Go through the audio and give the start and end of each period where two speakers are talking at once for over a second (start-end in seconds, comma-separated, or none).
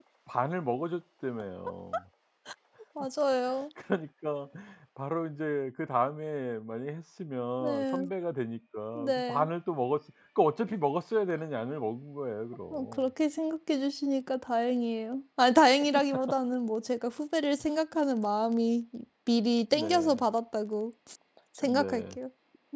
none